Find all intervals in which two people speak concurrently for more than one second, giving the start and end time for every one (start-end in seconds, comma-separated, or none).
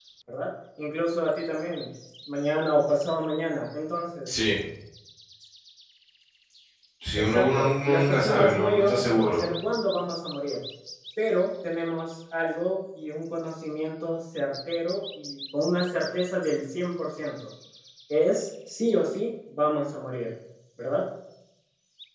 7.2-9.5